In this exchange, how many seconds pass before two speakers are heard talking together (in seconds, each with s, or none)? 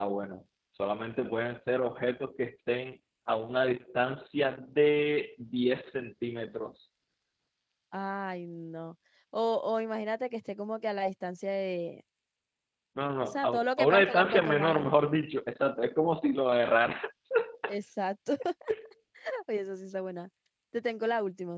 13.2 s